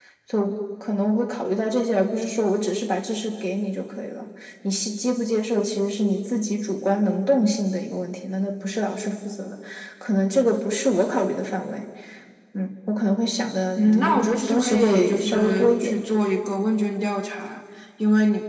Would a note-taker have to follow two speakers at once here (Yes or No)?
Yes